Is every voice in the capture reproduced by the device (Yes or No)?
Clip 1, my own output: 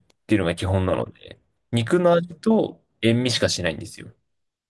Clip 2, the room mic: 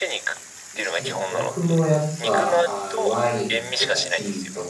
No